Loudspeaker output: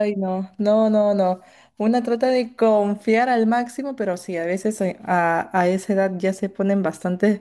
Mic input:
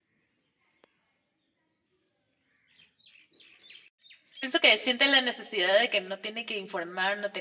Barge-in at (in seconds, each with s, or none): 4.4 s